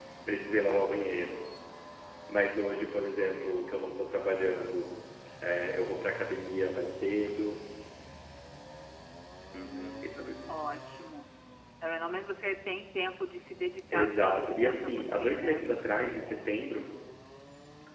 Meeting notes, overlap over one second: present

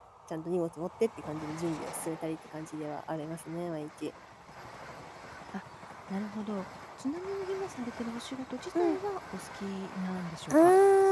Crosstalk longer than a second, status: none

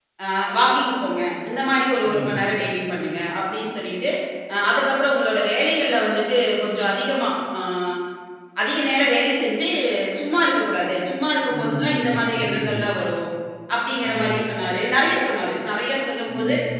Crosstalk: present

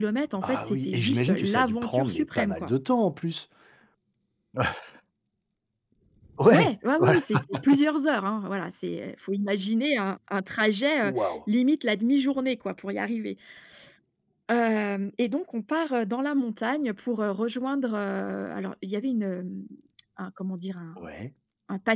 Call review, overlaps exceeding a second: present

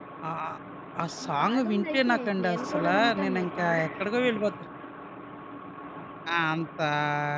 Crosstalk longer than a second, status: present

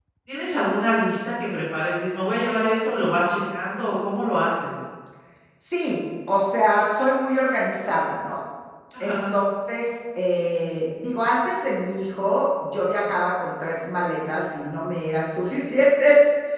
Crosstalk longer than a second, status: none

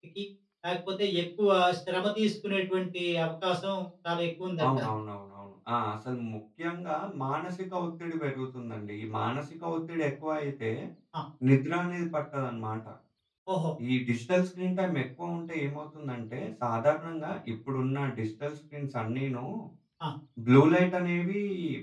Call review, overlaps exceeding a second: none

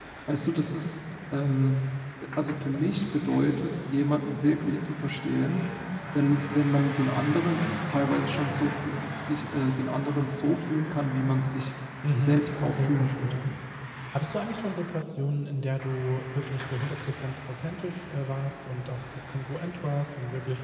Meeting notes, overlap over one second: present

